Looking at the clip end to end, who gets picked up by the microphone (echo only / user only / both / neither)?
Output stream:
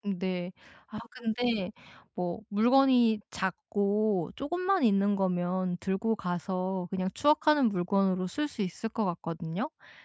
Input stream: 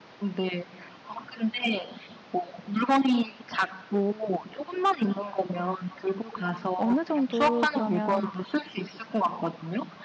both